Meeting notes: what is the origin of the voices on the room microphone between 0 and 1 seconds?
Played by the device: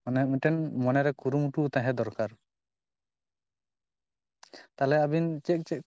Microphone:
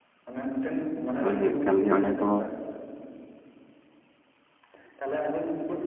echo only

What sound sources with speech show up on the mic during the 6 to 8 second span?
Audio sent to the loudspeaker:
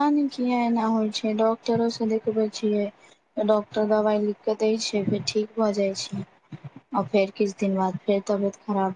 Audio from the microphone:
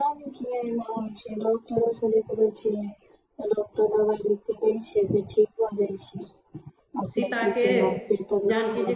both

